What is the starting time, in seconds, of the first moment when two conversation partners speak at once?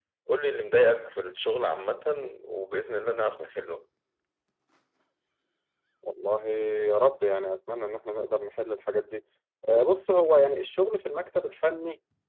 none

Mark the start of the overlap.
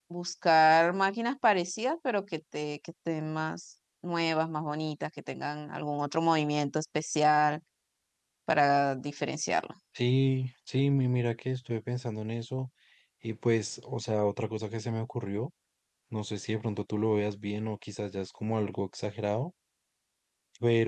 none

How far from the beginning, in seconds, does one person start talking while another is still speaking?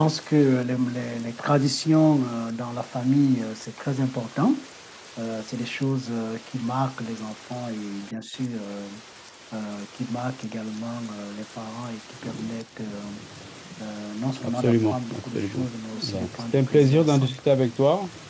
14.4 s

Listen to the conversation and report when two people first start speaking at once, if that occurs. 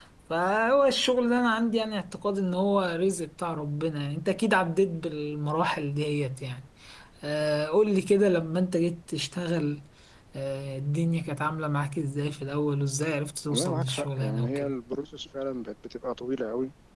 13.5 s

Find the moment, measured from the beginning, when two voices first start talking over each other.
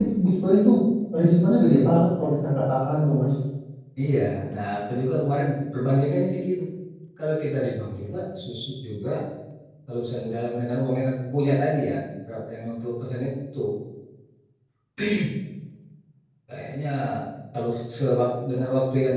none

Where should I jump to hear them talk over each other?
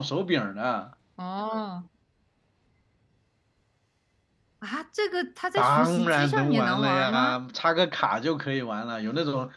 5.6 s

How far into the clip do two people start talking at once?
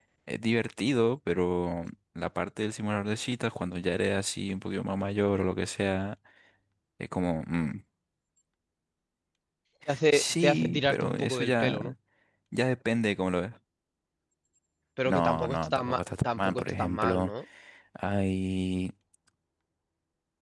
10.1 s

